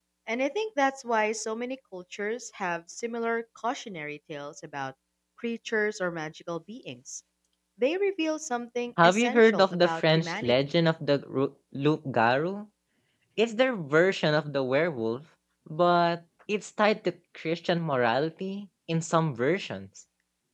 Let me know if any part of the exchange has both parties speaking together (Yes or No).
Yes